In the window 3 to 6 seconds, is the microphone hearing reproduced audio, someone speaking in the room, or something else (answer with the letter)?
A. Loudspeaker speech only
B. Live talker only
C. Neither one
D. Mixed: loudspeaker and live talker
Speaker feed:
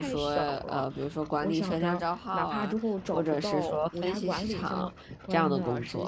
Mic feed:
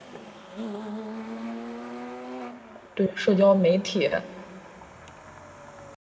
B